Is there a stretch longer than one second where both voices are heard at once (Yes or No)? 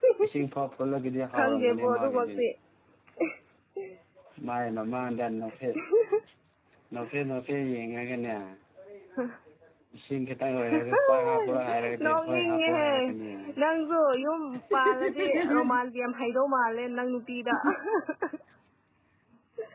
Yes